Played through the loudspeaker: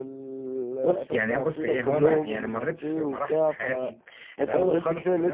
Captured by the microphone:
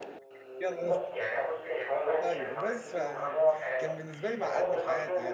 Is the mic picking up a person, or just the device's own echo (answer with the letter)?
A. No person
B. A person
B